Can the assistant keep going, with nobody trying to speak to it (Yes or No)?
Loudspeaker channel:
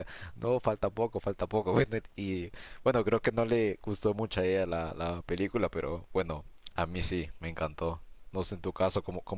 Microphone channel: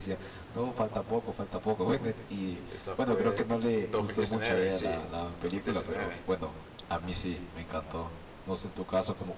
No